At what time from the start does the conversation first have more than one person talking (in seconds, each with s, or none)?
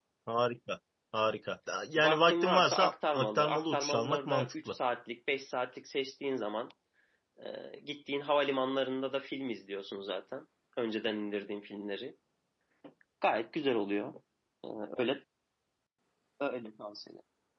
2.0 s